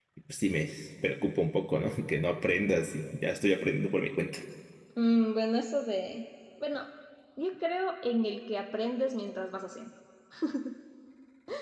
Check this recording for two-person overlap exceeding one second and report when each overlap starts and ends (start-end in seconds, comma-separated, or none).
none